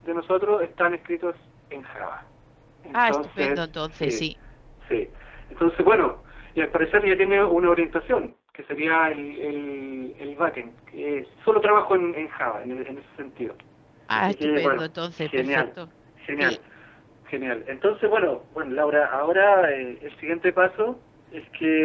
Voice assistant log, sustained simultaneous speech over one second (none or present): present